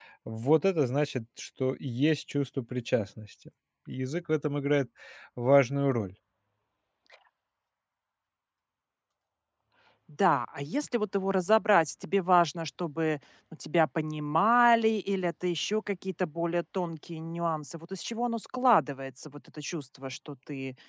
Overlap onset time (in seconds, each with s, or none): none